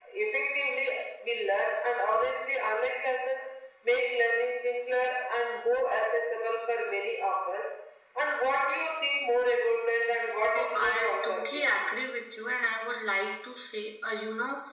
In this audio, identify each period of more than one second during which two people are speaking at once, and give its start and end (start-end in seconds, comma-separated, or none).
10.6-11.8